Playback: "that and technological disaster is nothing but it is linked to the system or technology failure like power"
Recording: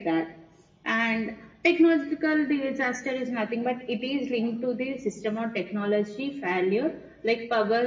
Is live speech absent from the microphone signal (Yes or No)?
Yes